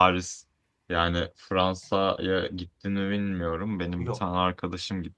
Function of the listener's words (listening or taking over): listening